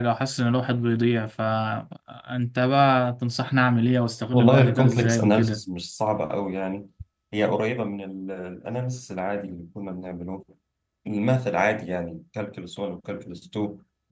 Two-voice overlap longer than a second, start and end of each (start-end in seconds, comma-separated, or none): 4.3-5.6